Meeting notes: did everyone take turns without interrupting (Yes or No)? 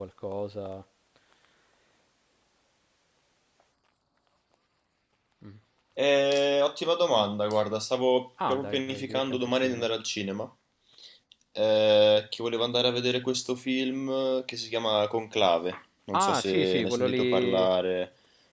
No